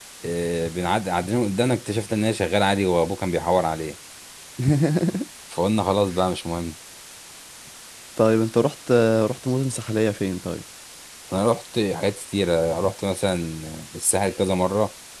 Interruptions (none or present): none